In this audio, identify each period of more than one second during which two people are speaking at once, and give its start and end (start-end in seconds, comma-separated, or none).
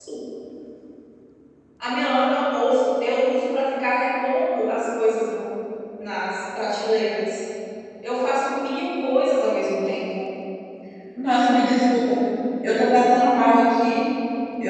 none